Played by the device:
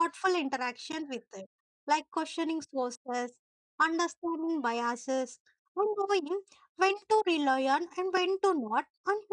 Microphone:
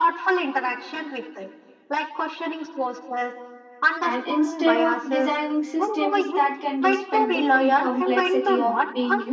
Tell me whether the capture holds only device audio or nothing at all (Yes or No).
No